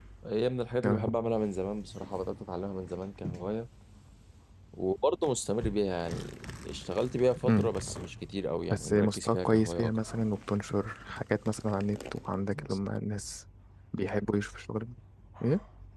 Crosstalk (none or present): present